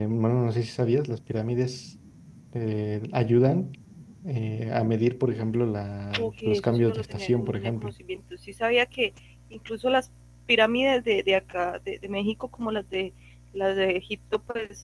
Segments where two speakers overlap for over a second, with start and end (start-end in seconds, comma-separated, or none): 6.2-7.9